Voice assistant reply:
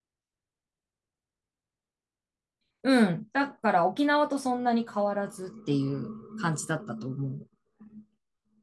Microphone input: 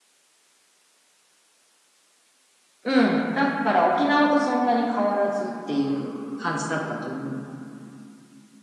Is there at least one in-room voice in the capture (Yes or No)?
No